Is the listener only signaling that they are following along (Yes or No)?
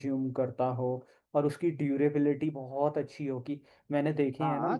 No